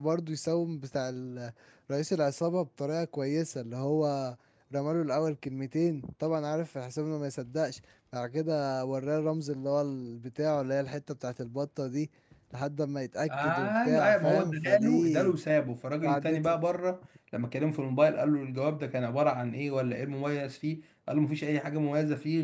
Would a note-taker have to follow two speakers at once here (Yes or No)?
Yes